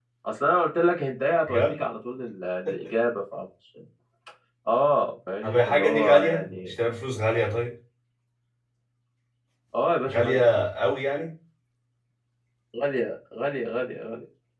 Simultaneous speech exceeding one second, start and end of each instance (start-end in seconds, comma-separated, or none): 5.4-6.7